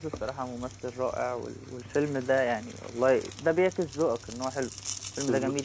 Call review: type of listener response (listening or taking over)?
taking over